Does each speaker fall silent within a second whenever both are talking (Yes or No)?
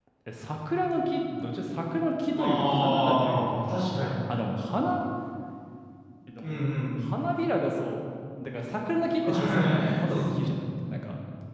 No